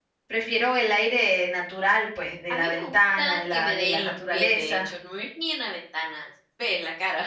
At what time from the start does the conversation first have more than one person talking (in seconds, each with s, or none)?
2.5 s